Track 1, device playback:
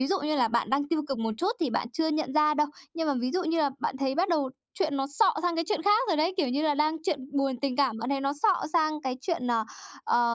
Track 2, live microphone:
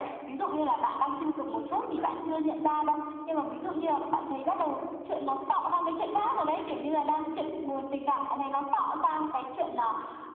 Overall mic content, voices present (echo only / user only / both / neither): both